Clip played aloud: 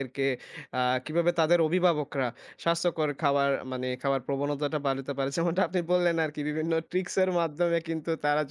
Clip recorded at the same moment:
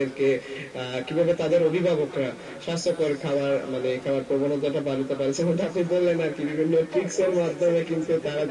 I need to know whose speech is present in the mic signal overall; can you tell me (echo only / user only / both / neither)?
both